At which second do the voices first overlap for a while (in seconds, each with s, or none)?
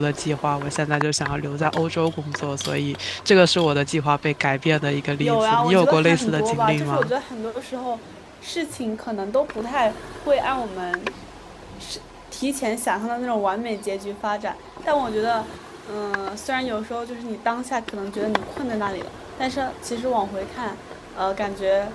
5.2 s